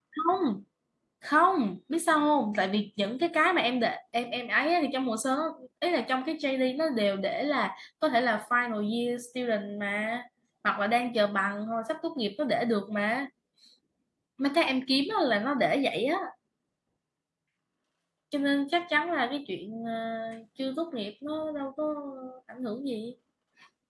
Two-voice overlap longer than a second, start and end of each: none

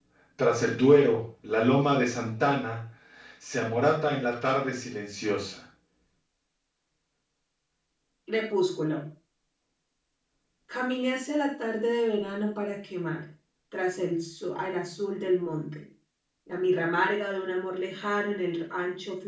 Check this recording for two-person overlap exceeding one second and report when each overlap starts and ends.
none

